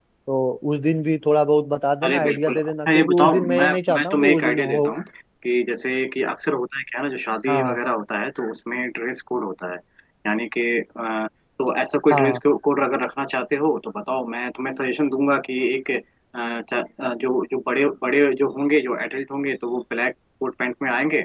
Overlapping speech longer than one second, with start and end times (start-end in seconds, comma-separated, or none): 2.0-4.8